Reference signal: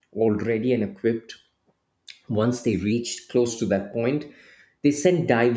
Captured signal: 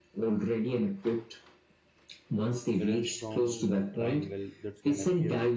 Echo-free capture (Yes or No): No